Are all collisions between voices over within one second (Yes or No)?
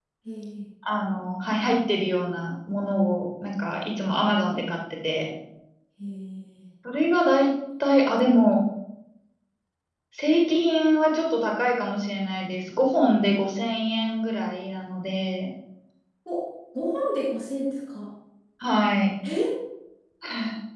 Yes